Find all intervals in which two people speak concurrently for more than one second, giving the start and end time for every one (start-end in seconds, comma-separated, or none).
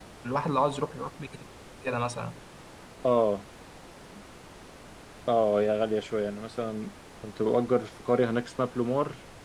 none